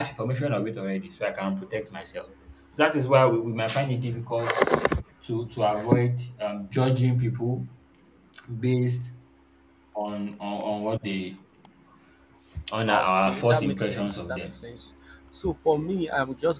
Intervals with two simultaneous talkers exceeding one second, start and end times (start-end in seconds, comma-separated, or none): 12.9-14.5